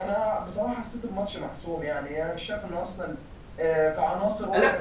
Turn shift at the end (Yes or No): Yes